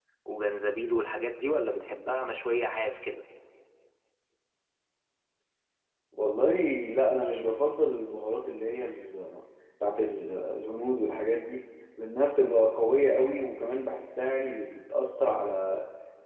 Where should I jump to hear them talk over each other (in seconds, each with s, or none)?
none